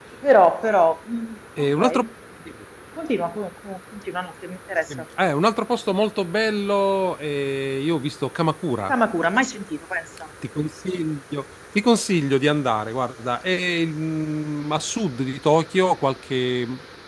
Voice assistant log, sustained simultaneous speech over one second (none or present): none